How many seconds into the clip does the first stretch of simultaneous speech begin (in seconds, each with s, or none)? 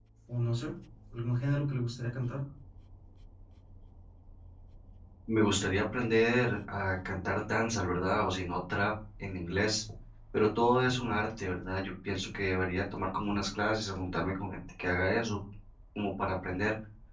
none